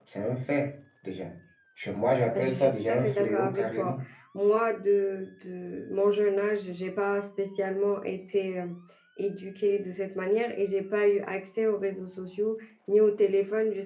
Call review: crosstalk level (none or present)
present